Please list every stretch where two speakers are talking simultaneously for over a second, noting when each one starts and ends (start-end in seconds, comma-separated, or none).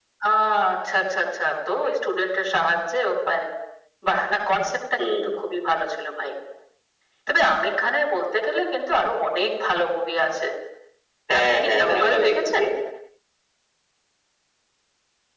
11.4-12.6